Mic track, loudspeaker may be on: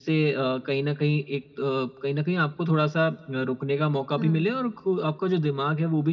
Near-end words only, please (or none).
हुँ,